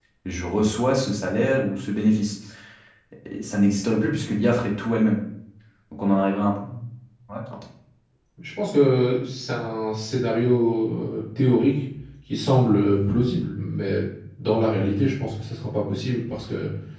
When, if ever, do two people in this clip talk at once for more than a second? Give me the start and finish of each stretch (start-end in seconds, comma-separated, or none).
none